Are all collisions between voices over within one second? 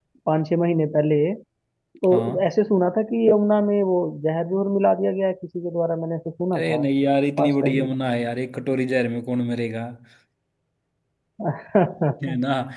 Yes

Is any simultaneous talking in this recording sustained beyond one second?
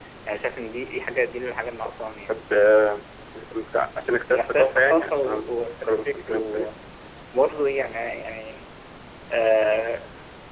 Yes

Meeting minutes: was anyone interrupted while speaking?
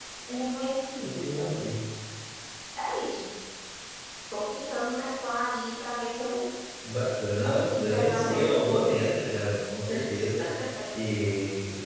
Yes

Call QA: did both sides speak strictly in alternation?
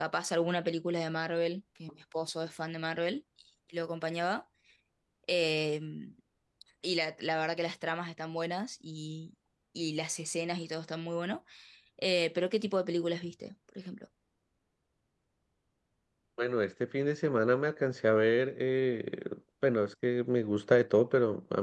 Yes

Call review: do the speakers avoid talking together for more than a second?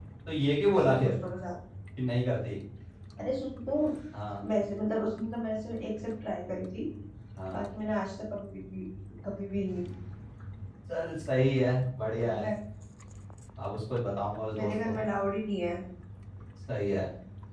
Yes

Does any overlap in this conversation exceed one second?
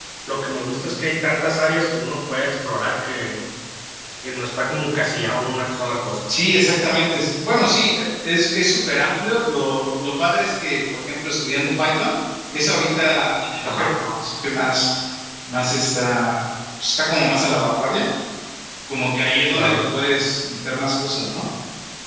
No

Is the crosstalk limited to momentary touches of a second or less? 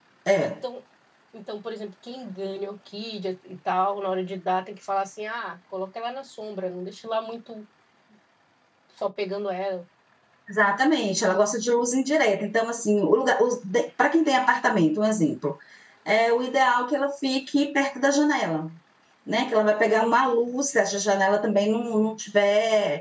Yes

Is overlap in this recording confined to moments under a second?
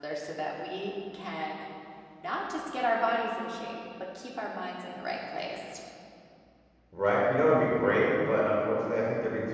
Yes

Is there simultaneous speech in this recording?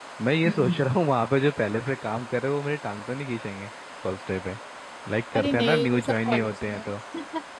Yes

